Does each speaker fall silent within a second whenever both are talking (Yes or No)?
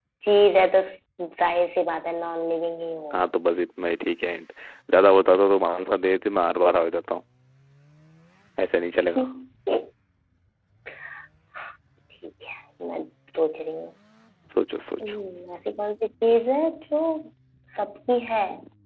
Yes